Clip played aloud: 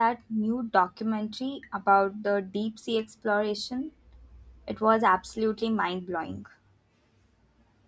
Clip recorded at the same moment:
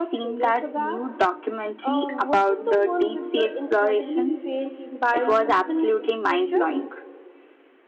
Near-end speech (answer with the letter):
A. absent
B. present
B